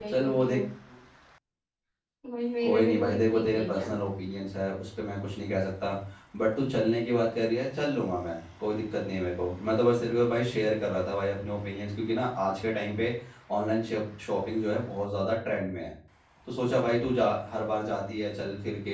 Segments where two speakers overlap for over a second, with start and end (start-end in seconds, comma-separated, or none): 2.6-3.9